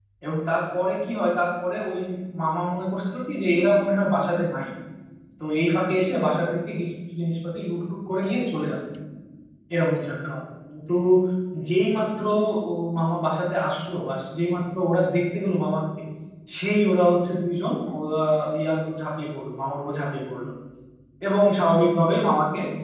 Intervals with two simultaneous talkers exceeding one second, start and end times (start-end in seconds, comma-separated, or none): none